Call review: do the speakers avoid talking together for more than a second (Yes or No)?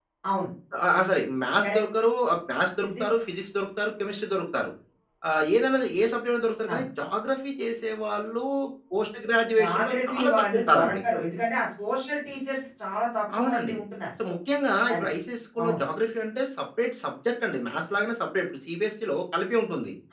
No